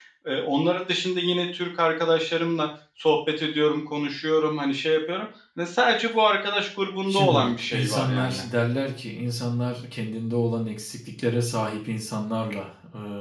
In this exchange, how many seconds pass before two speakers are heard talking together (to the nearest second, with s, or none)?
7 s